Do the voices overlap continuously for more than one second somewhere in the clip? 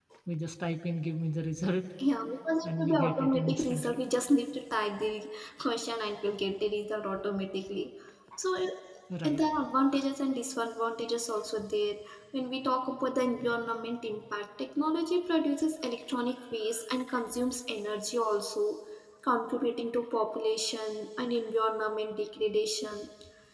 Yes, from 2.6 s

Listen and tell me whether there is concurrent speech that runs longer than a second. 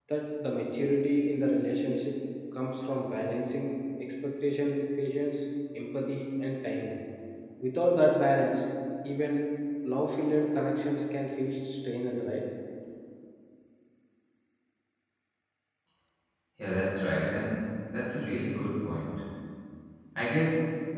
No

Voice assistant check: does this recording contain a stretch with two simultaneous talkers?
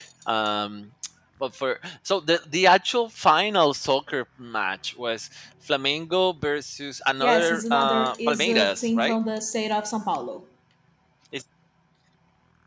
Yes, from 7.2 s

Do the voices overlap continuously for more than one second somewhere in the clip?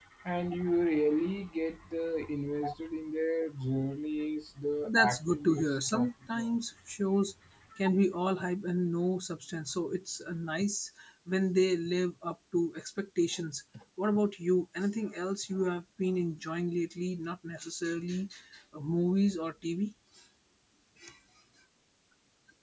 Yes, from 4.8 s

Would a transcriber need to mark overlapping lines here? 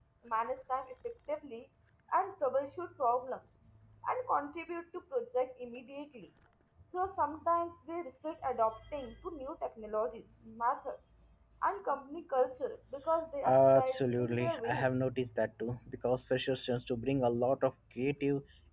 Yes, from 13.4 s

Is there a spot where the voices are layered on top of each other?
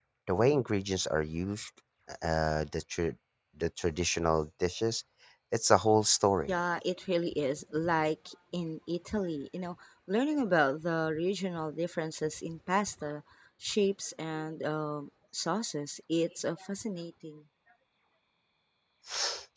No

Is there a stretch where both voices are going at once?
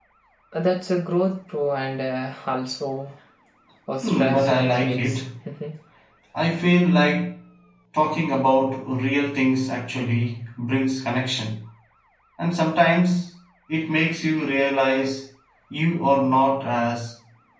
Yes, from 4.0 s

